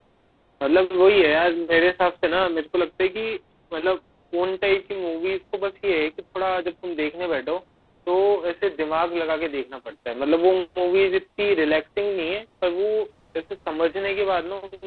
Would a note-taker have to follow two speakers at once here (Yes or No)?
No